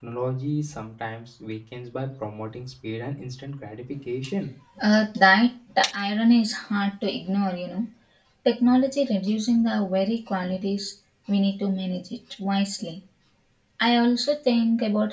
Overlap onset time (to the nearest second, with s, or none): none